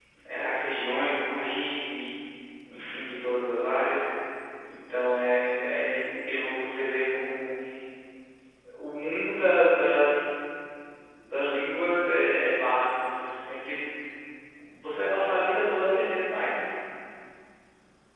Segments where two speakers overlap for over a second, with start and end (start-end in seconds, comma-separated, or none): none